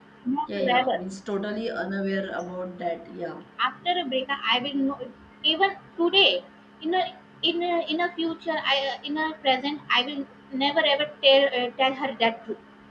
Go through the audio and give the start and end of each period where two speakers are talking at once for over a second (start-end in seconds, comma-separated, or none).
none